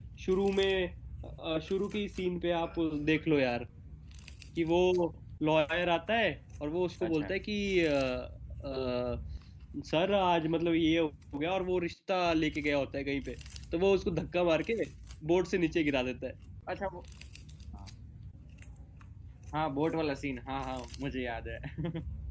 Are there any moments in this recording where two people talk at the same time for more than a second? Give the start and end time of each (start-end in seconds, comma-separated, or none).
none